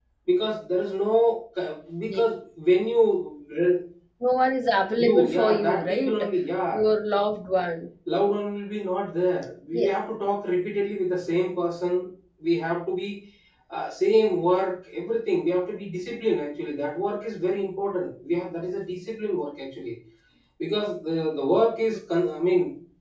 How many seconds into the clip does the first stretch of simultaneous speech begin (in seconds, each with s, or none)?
5.0 s